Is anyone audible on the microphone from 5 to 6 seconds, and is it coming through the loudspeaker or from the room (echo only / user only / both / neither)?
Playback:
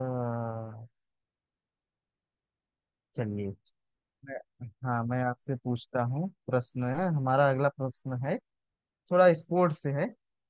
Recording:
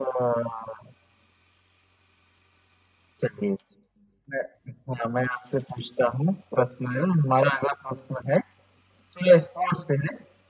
echo only